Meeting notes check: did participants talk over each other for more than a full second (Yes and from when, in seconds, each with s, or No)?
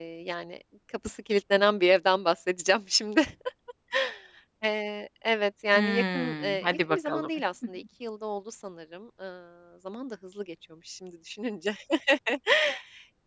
Yes, from 5.7 s